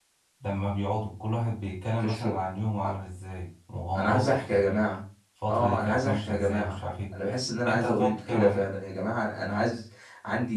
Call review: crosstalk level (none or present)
present